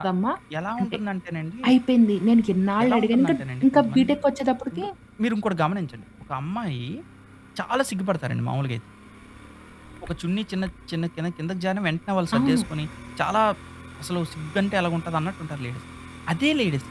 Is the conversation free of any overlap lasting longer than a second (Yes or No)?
No